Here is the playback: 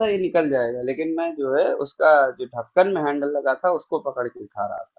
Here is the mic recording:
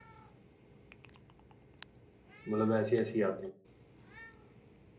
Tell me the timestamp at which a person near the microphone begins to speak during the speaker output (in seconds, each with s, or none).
2.5 s